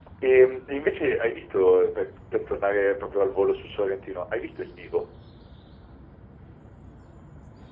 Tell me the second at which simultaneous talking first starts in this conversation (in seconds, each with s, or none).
none